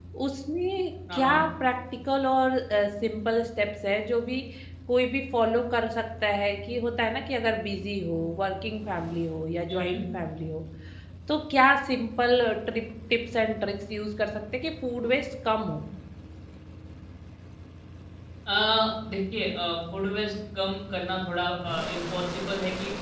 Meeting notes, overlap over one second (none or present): none